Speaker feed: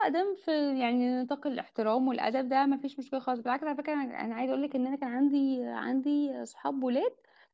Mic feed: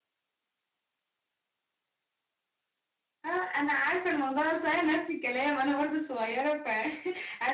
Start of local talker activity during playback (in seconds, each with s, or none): 3.2 s